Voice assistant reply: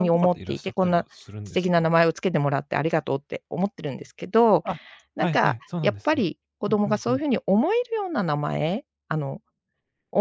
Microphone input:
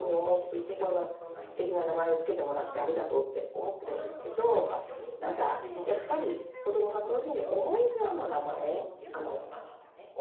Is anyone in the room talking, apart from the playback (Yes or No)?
Yes